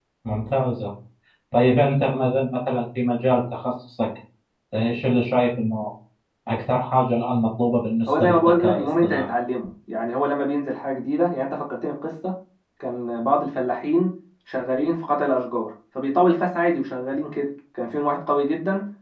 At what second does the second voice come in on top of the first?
8 s

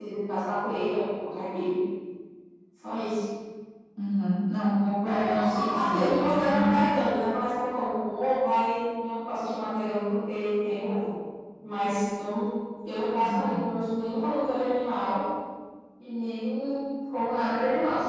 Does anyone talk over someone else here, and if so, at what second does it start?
5 s

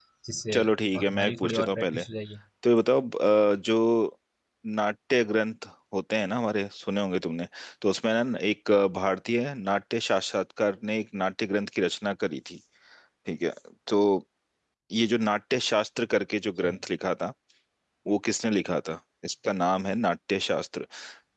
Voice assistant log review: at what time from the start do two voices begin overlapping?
1 s

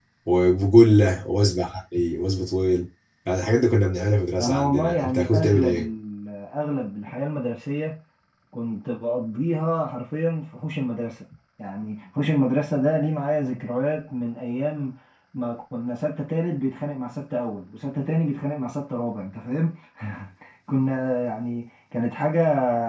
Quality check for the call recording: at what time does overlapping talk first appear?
4 s

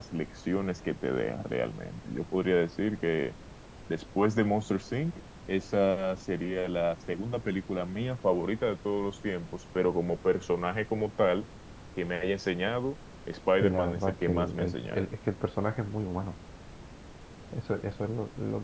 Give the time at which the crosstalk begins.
14 s

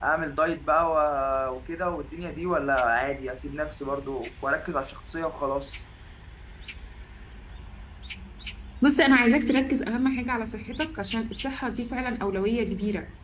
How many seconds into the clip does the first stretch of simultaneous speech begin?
none

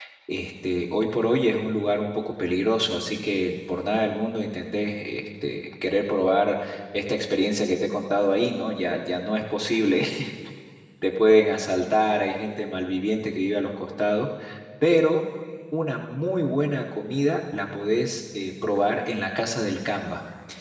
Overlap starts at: none

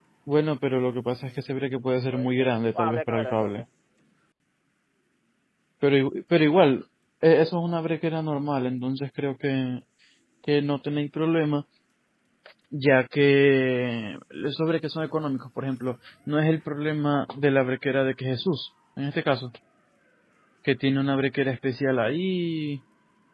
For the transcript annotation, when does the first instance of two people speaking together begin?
1 s

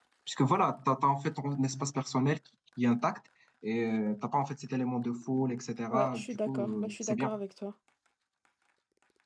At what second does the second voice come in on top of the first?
6 s

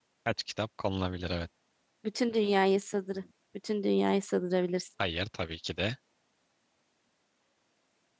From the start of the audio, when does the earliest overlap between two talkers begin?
none

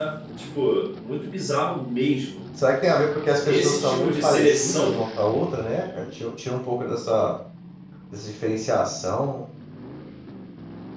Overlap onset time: 3 s

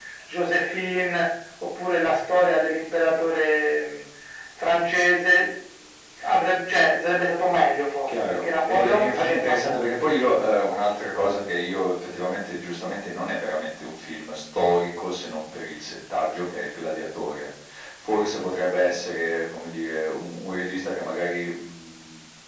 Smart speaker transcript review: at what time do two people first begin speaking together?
8 s

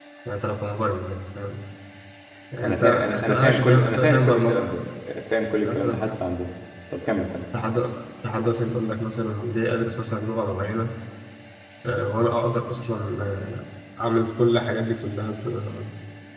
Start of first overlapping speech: 3 s

